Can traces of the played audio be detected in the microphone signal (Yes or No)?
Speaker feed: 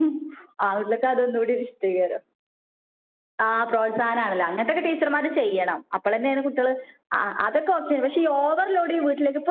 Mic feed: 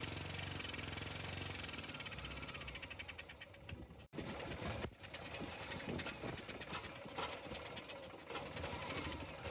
No